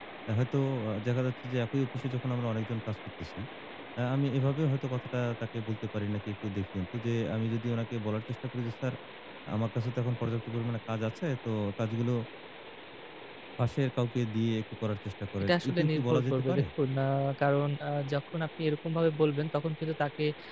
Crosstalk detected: Yes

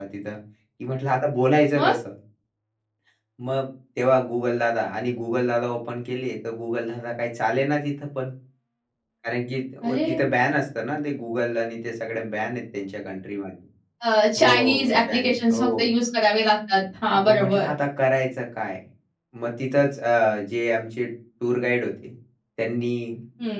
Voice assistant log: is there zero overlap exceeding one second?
No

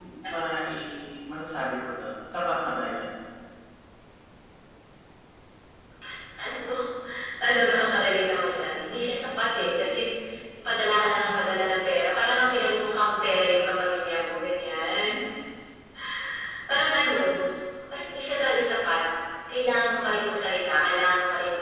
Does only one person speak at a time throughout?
Yes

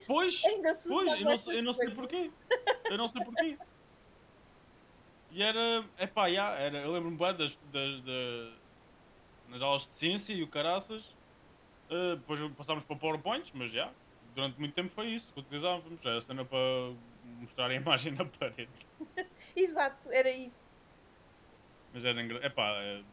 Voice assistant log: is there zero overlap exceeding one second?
No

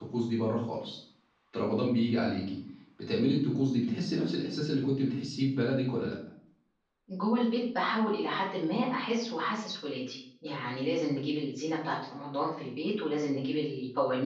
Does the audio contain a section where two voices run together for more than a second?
No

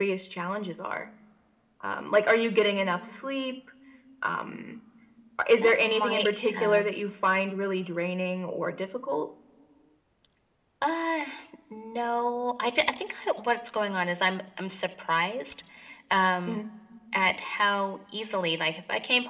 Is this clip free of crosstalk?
No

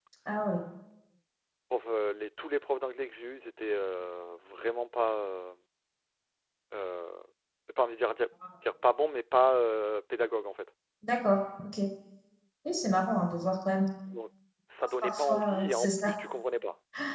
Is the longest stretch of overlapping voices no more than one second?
No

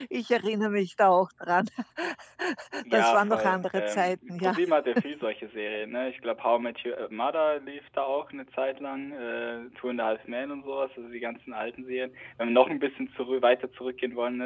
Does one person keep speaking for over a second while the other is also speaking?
Yes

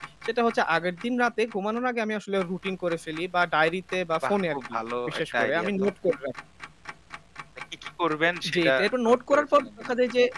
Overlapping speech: Yes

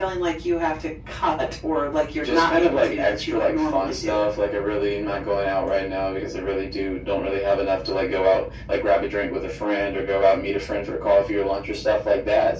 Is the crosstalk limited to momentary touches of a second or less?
No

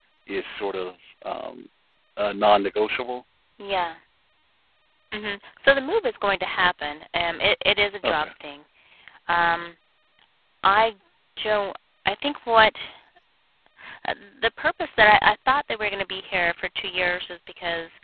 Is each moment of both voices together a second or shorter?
Yes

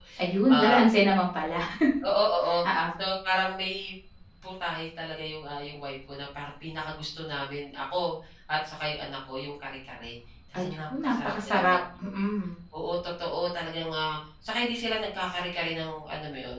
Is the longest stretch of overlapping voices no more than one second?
No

